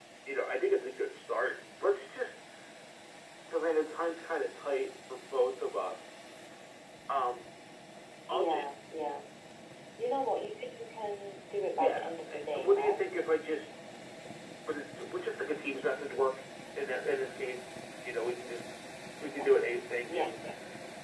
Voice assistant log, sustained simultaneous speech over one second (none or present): present